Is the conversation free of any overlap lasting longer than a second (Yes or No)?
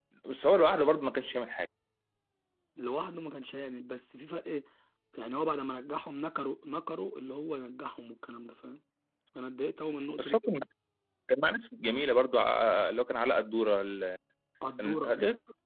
Yes